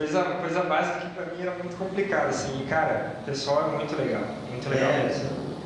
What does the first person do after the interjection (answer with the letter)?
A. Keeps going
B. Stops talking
B